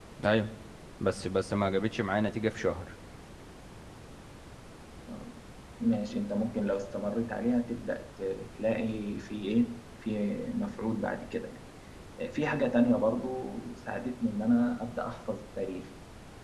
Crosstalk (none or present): none